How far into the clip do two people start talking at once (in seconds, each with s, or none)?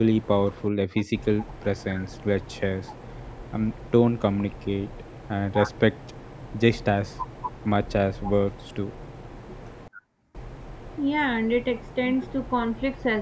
none